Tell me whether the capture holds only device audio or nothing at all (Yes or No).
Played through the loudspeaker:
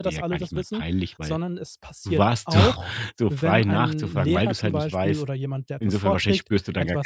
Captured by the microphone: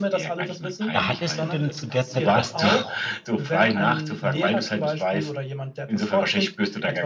No